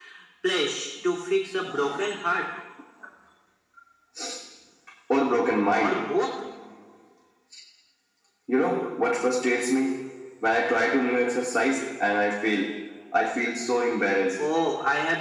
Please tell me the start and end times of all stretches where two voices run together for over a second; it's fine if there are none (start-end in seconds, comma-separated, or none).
none